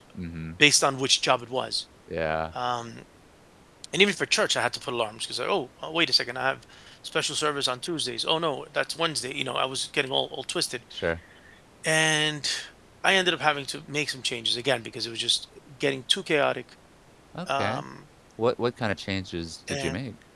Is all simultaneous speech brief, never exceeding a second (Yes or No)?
Yes